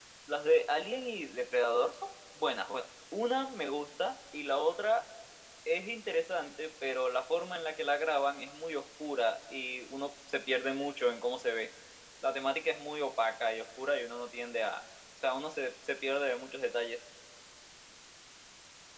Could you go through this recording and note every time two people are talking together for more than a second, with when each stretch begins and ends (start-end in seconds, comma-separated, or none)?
none